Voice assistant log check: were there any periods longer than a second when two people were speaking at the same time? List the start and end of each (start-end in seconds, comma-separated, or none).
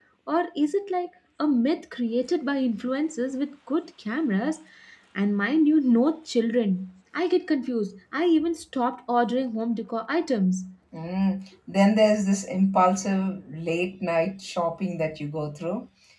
none